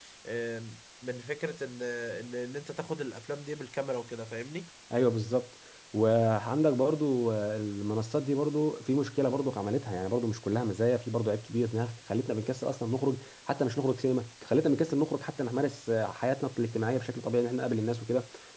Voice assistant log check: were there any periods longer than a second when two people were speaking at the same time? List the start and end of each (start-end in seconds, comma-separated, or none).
none